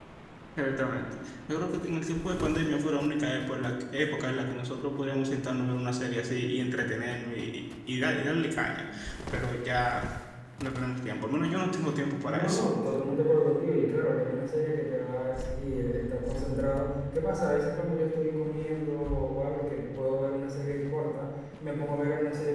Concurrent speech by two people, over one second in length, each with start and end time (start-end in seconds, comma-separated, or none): none